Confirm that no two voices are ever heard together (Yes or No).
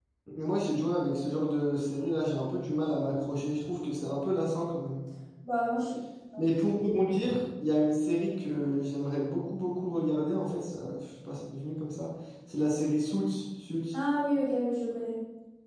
Yes